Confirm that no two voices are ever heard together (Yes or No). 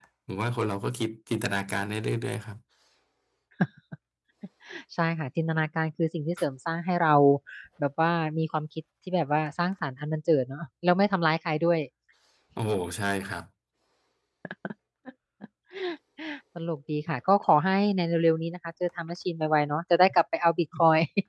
Yes